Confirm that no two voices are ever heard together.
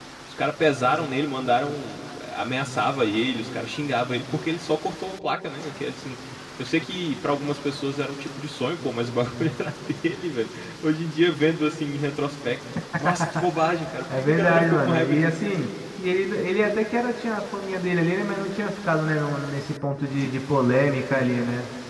No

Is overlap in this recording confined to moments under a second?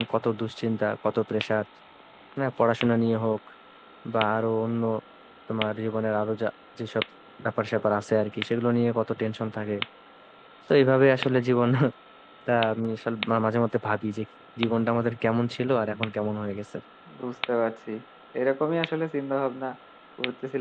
Yes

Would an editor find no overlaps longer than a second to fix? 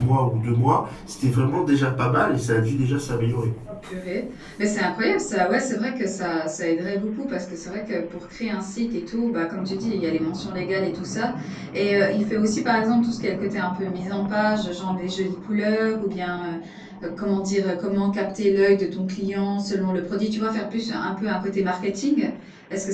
Yes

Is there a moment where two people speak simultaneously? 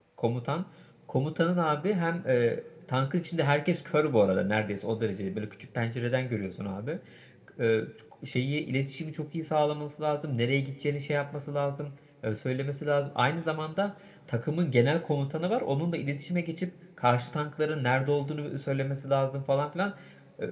No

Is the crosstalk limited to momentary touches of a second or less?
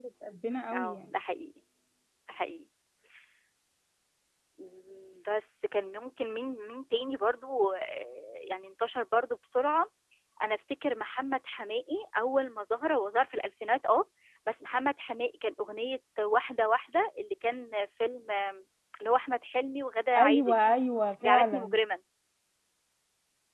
Yes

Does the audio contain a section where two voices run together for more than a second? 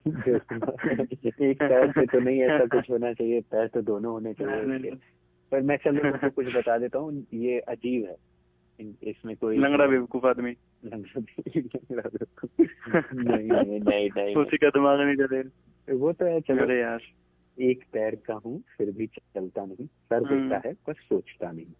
Yes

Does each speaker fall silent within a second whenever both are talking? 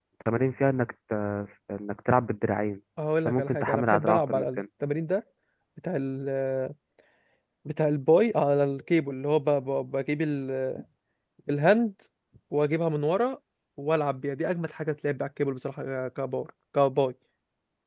No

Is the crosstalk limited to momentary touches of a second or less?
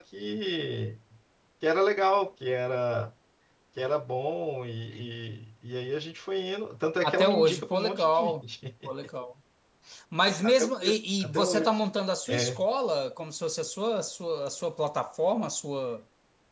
No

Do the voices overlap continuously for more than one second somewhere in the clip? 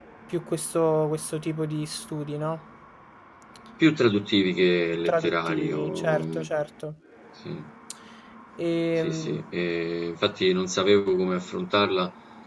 Yes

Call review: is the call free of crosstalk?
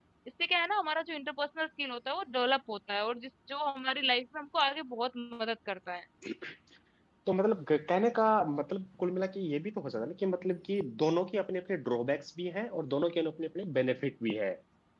Yes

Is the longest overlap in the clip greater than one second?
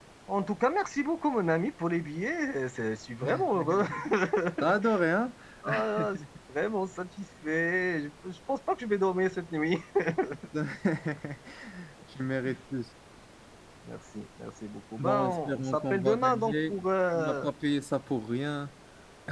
Yes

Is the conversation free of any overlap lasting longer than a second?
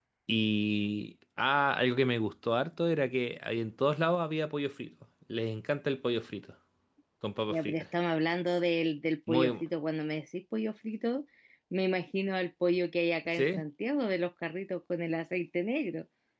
Yes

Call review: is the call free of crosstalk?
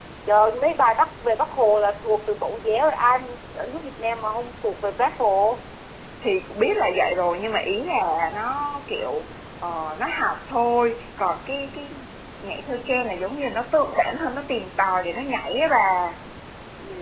Yes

